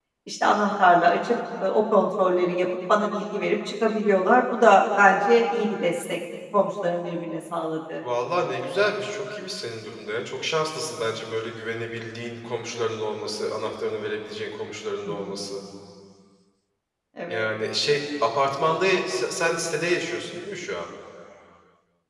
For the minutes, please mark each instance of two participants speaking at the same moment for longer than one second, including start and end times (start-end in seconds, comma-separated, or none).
none